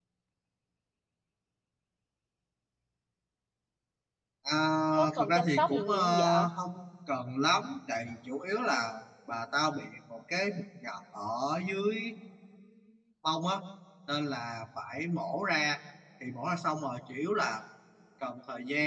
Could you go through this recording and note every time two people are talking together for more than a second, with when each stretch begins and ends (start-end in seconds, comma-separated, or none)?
5.2-6.5